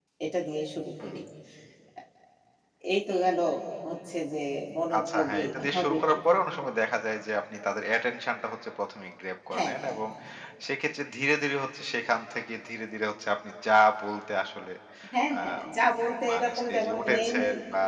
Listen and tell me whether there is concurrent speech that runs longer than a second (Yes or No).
Yes